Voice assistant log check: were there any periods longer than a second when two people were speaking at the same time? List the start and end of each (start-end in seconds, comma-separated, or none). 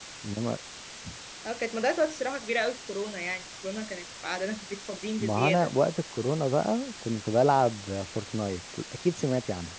none